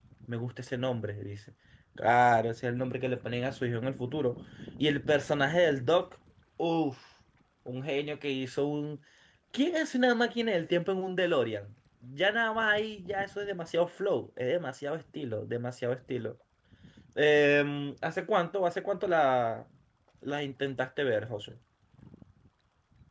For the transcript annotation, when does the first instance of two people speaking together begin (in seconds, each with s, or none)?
none